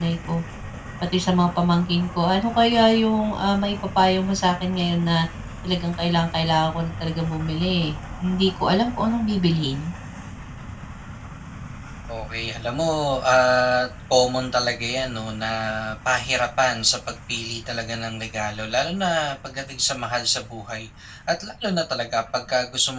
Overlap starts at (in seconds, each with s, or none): none